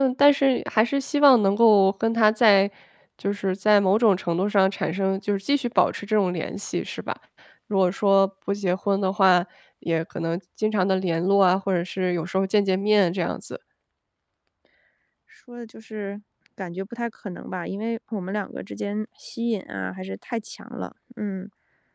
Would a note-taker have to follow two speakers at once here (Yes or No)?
No